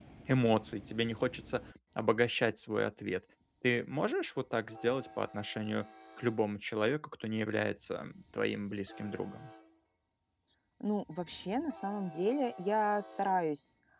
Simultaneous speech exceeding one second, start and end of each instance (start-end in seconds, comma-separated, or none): none